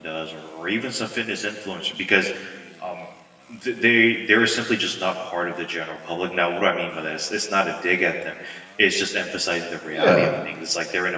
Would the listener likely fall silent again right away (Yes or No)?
Yes